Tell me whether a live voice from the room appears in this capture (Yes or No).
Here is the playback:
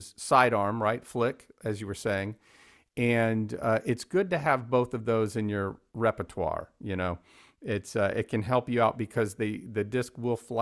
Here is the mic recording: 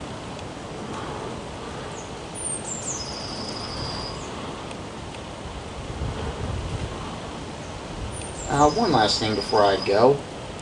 Yes